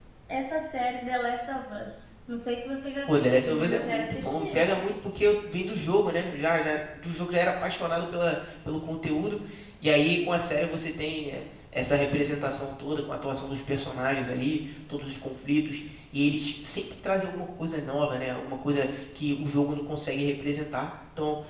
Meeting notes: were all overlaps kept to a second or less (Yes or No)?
No